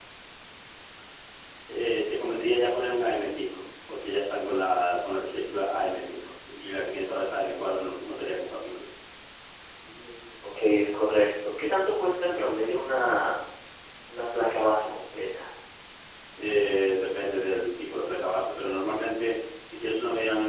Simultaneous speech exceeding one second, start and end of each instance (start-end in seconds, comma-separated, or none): none